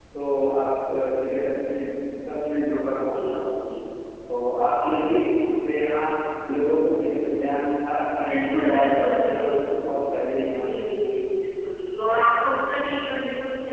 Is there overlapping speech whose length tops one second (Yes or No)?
Yes